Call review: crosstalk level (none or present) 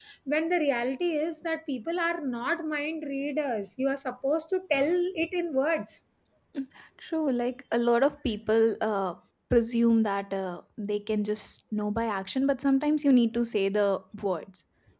none